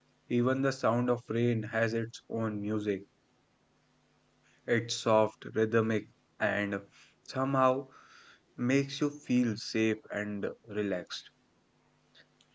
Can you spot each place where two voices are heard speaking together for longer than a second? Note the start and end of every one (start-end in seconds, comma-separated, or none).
none